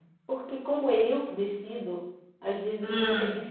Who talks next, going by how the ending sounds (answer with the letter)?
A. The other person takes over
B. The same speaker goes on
B